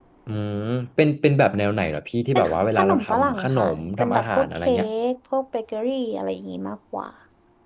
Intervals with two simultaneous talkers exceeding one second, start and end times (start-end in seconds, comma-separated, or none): 2.4-4.7